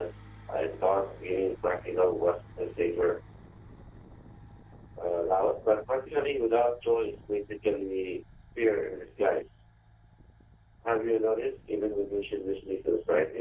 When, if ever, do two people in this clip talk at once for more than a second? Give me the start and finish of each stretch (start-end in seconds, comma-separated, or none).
none